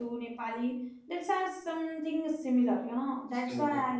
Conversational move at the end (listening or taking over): listening